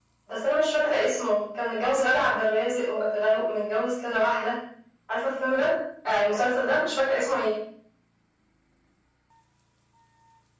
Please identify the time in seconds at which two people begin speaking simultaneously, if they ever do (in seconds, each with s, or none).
none